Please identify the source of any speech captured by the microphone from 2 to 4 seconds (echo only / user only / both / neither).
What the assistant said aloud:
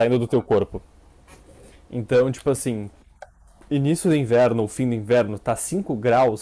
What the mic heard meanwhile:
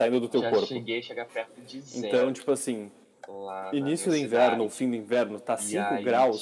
both